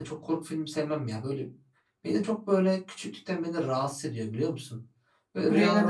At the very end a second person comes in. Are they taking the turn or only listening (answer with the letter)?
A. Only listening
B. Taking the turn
A